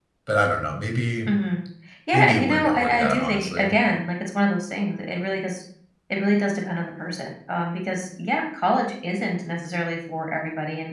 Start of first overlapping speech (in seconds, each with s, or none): 2.1 s